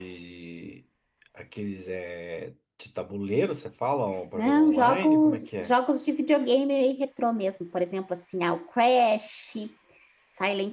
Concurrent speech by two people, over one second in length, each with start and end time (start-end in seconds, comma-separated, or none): 4.3-5.7